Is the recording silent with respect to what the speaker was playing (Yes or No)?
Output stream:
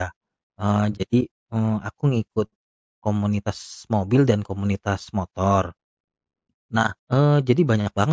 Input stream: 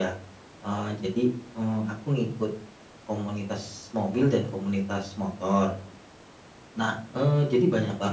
No